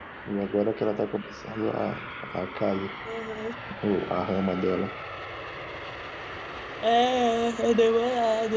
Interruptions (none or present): none